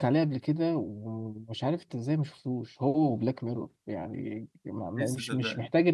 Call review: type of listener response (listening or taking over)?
listening